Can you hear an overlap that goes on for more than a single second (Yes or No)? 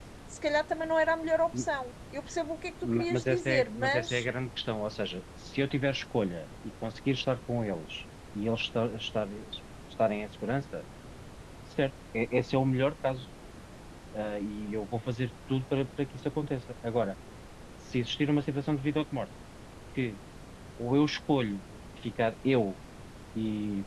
Yes